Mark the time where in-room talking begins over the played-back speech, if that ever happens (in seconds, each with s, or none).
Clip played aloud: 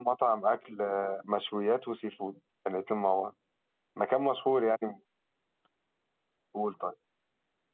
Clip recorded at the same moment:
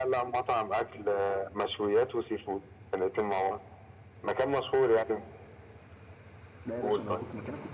6.6 s